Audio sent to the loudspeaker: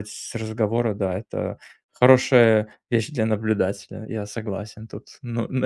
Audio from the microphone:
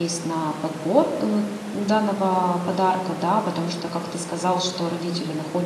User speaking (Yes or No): Yes